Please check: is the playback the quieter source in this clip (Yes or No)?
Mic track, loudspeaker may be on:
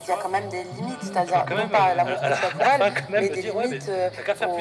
No